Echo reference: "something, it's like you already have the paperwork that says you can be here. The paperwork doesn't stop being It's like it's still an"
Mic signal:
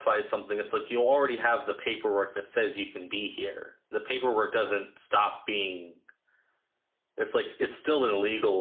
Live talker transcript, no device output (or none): none